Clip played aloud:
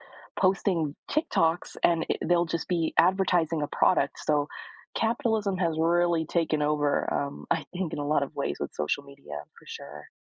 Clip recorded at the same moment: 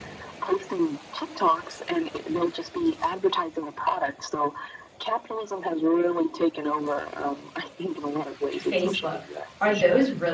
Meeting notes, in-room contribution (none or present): present